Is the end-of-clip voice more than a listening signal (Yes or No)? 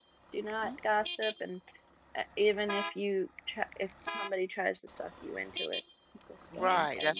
Yes